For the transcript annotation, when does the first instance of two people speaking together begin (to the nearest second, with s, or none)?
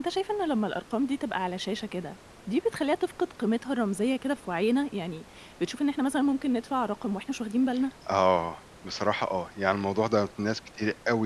none